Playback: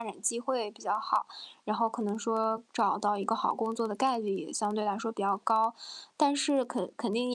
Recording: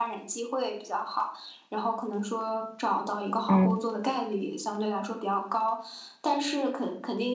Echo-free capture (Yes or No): No